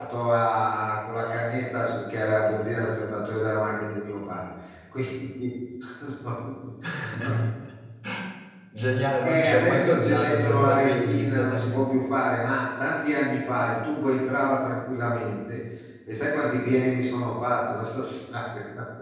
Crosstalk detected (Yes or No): Yes